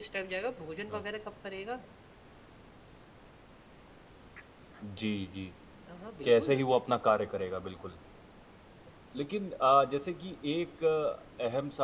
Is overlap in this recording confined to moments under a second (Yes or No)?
Yes